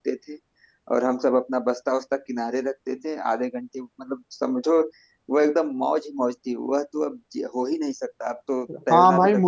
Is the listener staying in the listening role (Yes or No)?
No